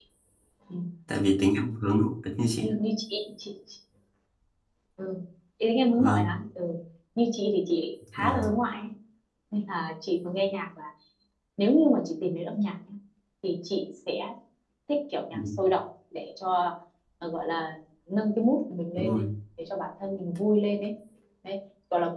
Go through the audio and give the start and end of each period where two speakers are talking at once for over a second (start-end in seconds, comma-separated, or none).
none